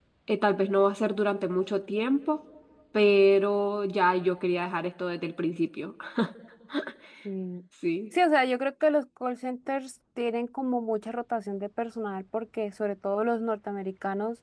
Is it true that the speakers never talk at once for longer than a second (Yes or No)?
Yes